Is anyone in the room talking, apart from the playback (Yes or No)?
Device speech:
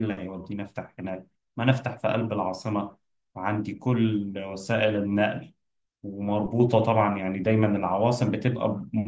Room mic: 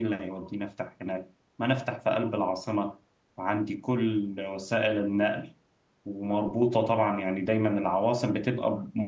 No